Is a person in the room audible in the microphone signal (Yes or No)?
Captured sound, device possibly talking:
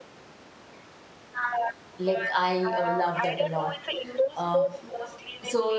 Yes